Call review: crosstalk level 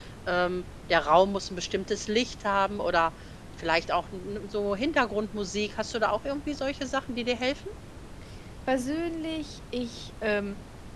none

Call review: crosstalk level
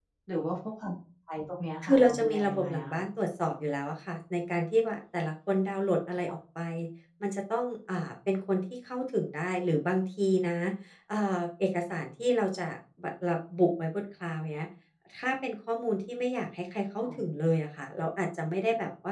present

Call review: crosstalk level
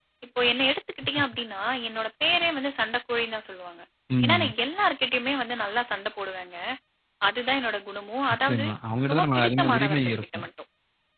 present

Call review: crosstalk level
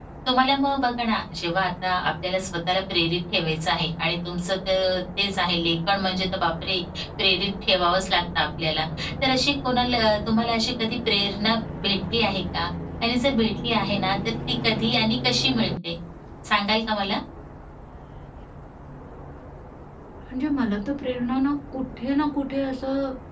none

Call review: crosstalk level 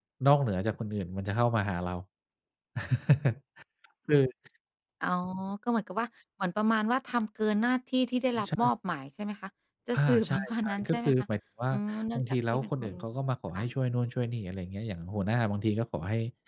present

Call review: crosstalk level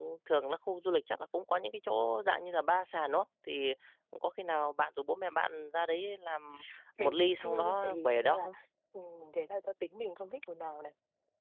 present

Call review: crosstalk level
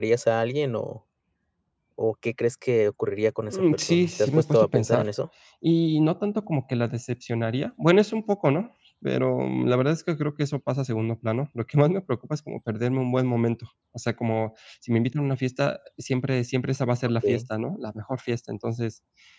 present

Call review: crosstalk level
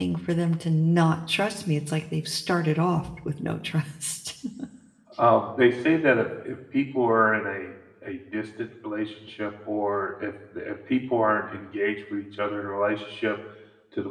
none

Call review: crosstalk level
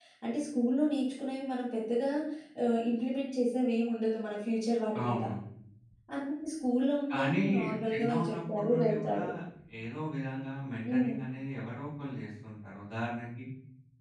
present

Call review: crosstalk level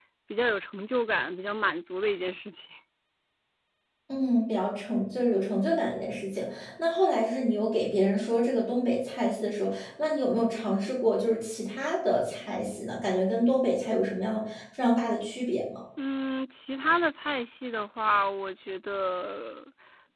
none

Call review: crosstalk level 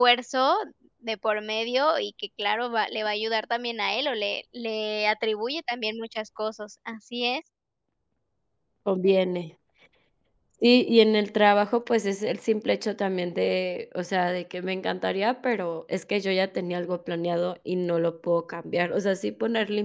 none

